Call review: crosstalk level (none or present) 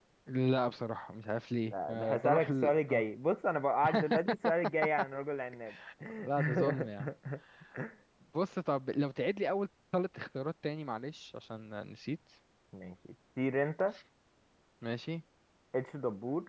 present